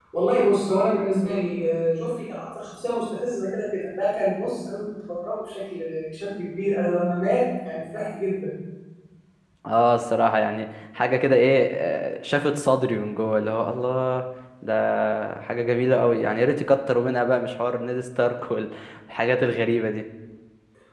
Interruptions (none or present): none